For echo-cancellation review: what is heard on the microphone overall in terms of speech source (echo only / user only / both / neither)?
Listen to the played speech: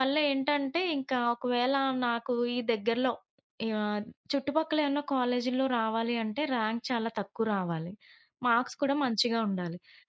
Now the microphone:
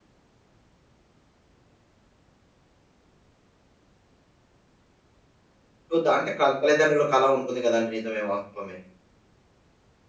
user only